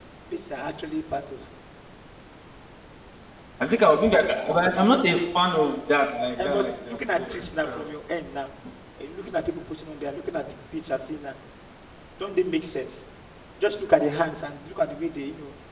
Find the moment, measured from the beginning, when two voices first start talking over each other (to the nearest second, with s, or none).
6 s